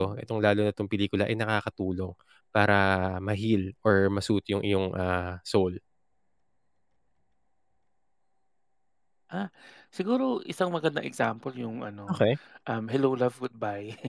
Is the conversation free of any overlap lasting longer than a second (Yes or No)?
Yes